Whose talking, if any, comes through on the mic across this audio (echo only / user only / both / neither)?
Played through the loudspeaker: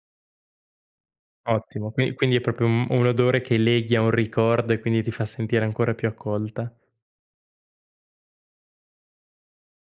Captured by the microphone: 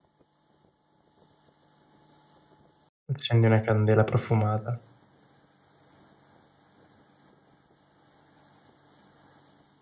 user only